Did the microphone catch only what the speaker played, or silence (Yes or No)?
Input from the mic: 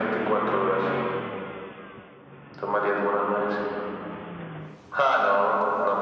Yes